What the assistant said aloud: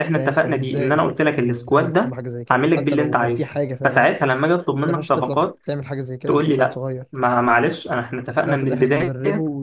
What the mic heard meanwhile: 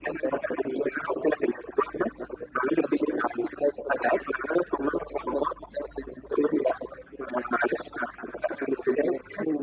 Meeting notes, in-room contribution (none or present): none